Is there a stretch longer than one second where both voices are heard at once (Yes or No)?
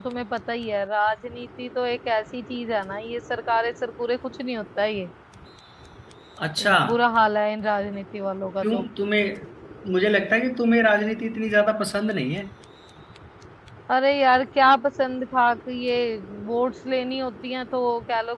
No